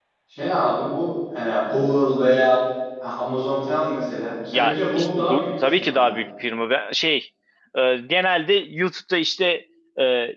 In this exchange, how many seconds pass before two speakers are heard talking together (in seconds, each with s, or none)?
4.5 s